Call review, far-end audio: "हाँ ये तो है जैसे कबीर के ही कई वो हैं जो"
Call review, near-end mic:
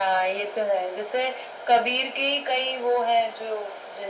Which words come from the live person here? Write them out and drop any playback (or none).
none